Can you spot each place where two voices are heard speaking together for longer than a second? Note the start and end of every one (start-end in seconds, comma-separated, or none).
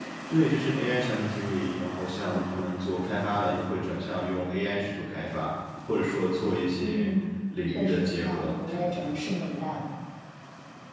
7.7-9.1